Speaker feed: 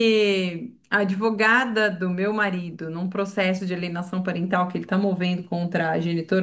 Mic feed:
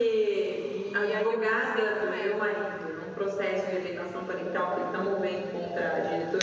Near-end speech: present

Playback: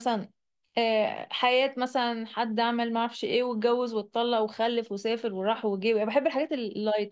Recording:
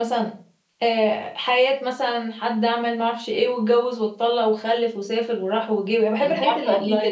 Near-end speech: present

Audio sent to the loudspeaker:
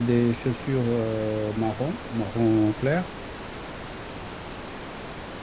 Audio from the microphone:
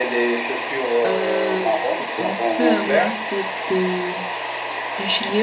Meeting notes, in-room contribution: present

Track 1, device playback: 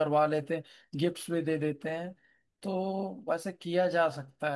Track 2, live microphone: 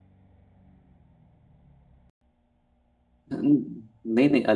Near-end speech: present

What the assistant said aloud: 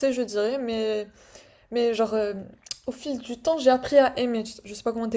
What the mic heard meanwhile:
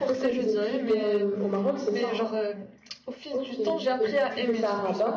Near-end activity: present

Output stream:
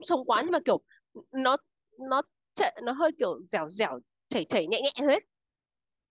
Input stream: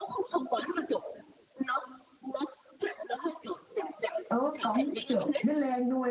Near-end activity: present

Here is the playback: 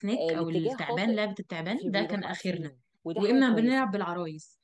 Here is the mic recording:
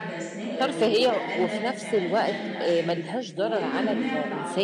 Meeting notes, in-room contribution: present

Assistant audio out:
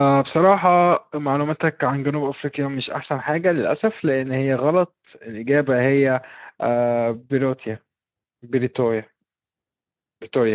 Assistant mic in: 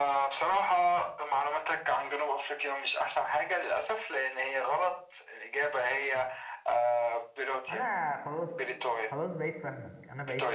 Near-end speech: present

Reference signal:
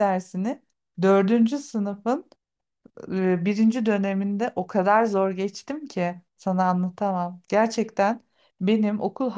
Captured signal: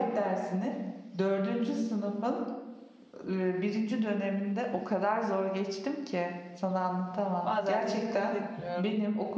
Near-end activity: present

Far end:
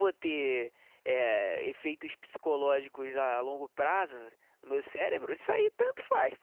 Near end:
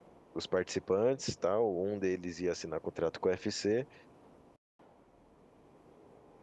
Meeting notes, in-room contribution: present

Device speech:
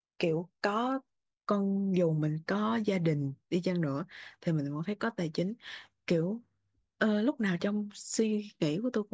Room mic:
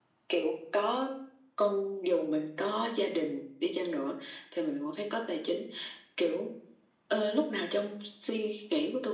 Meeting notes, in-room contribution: none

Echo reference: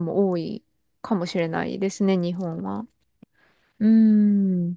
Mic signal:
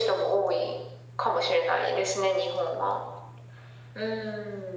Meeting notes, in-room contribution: none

